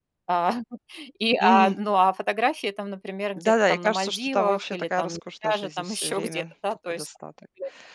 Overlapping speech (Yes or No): Yes